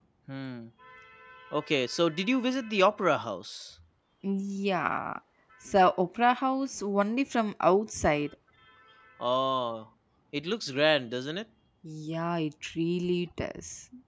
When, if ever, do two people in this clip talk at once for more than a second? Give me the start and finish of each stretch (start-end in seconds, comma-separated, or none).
none